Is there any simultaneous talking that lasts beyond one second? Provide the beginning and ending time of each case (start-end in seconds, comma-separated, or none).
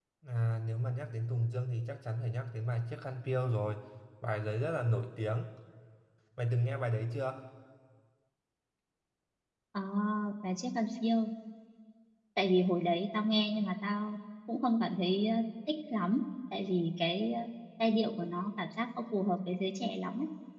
none